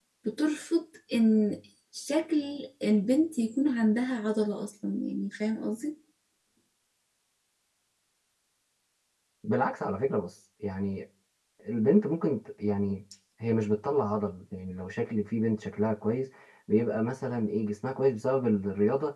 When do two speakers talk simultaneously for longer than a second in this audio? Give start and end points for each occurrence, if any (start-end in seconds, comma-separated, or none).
none